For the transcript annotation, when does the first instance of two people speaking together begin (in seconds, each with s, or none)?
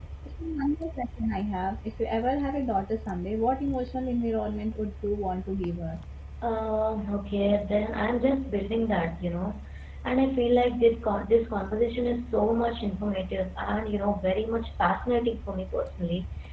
none